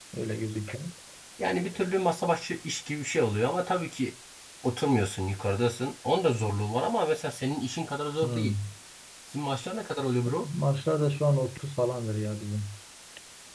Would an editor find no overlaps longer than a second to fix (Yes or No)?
Yes